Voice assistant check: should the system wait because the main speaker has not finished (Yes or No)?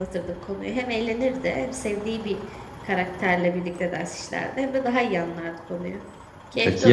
No